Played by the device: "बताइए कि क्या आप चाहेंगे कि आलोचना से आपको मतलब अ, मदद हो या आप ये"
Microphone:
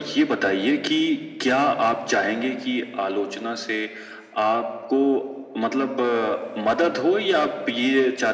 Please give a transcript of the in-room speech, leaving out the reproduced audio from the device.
none

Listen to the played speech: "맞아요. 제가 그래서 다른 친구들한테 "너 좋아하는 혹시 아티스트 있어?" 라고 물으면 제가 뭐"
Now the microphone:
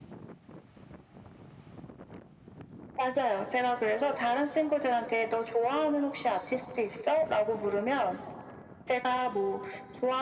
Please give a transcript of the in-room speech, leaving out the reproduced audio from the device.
none

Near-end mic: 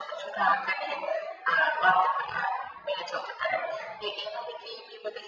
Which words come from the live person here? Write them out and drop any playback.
none

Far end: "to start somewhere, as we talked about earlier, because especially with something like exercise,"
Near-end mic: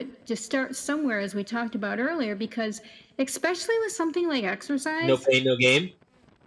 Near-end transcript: No pain, no game.

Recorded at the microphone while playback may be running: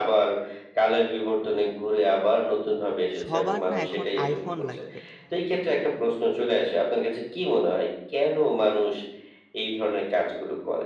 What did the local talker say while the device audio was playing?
সবার না এখন iPhone লাগবে।

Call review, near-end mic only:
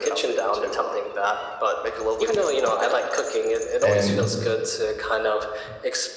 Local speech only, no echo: and

